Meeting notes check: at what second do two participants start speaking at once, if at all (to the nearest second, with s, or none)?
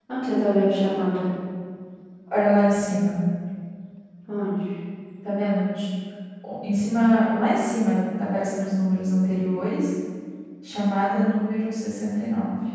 none